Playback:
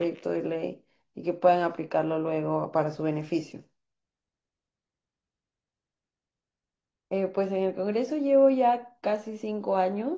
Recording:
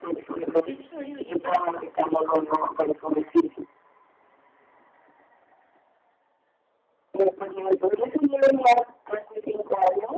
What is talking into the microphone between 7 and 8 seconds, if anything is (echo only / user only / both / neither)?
echo only